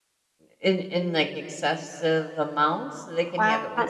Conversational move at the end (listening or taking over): taking over